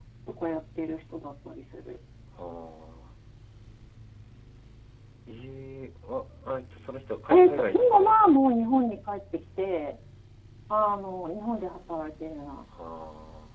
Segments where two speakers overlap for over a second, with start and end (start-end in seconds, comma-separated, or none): 7.3-8.6